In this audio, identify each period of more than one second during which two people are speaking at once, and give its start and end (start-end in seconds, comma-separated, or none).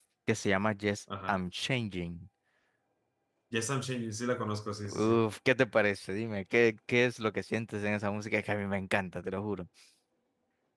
none